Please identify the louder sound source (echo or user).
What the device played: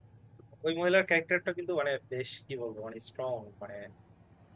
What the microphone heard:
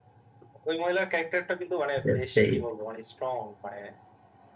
user